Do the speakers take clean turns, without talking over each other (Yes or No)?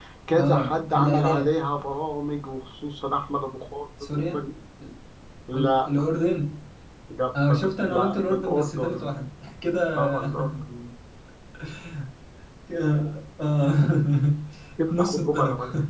No